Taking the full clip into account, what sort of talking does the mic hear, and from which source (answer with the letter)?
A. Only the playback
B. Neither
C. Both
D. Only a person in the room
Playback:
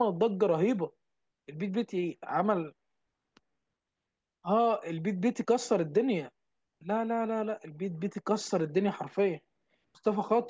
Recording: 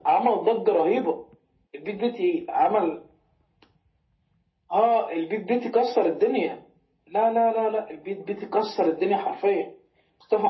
A